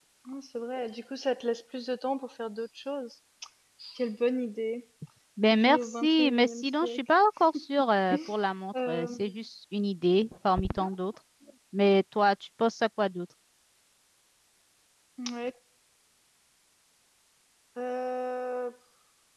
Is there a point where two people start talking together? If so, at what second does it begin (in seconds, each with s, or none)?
5.5 s